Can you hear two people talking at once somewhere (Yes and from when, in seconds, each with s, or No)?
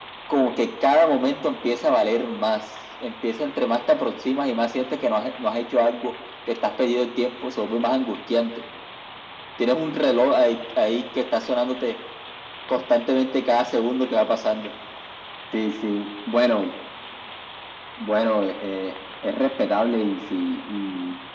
No